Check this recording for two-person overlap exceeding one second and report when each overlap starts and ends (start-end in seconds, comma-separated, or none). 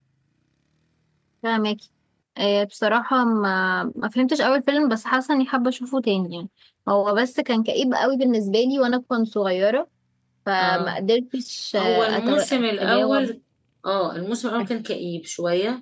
11.8-13.3